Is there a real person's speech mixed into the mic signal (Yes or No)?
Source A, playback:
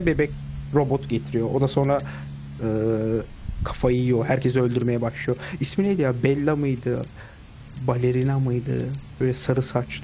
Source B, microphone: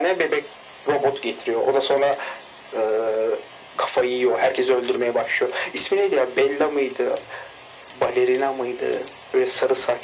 No